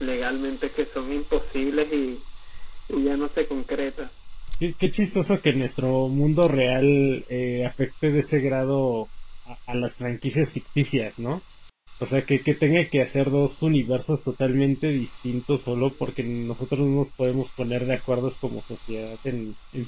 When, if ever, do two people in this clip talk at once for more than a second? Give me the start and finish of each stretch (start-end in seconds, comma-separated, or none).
none